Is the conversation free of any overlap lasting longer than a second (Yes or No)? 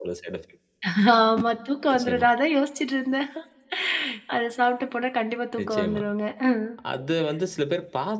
Yes